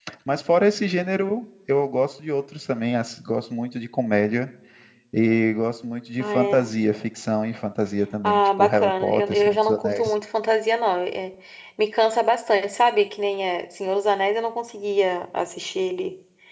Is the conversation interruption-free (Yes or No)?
No